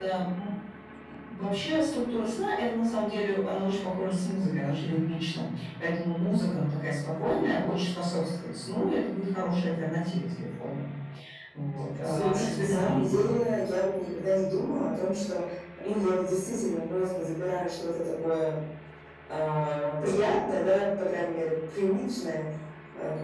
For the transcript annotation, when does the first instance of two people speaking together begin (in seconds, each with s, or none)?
12.0 s